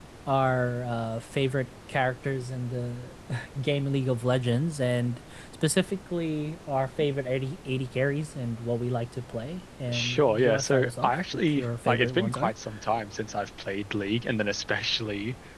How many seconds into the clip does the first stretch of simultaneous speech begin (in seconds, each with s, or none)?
9.9 s